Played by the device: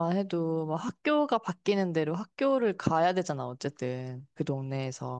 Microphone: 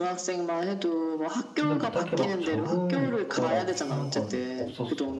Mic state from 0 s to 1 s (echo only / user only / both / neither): echo only